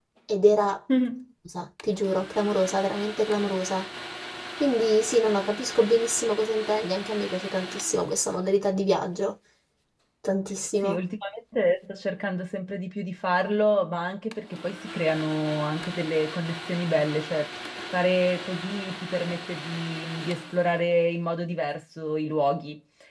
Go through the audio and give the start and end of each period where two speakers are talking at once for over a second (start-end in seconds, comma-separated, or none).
none